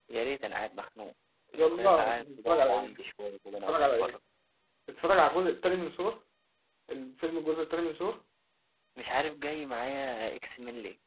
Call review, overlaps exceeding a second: present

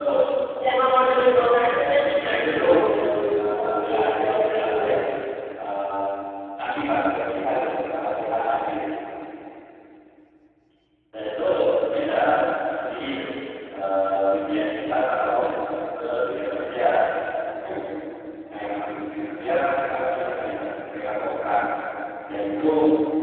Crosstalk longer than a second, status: present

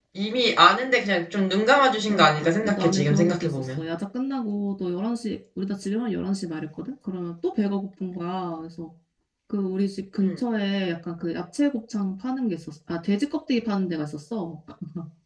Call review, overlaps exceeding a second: present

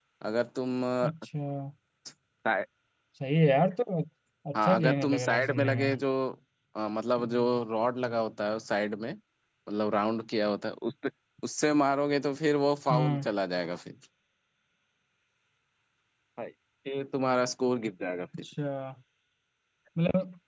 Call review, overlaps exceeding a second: present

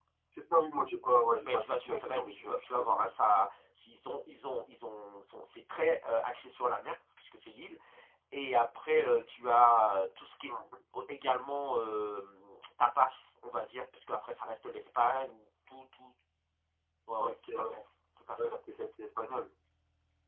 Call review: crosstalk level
present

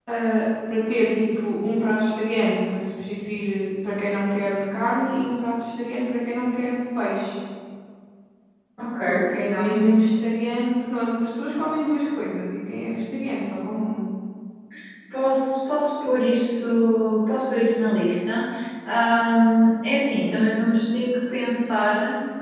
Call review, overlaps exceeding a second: none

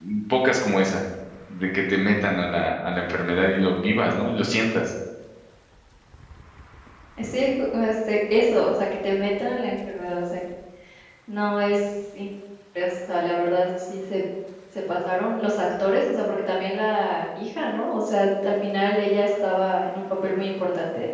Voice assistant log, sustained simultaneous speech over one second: none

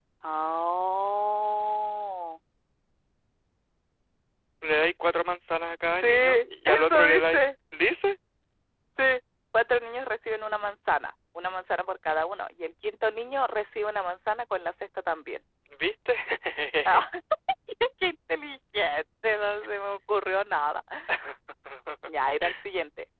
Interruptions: present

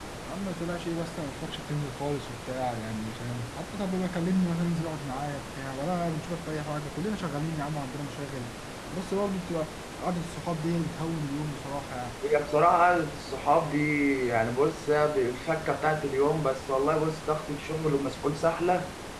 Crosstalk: none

